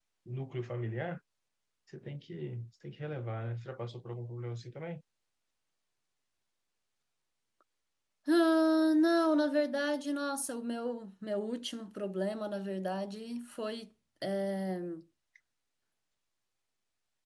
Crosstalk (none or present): none